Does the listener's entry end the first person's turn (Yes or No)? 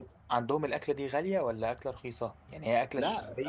Yes